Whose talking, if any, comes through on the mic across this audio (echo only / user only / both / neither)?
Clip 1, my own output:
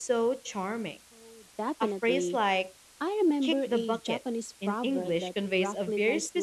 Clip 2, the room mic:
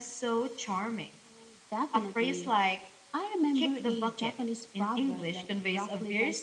echo only